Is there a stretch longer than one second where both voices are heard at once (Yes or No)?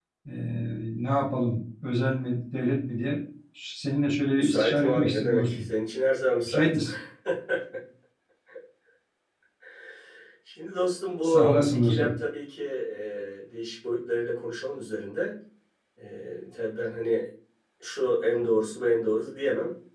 Yes